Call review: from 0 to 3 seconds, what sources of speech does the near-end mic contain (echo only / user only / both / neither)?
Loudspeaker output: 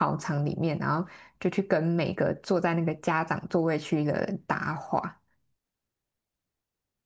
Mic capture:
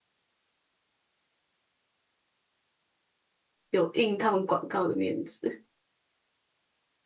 neither